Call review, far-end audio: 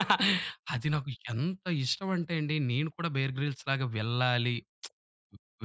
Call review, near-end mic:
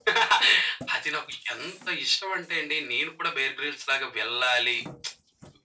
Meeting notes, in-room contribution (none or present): none